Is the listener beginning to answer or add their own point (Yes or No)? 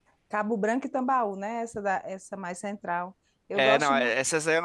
Yes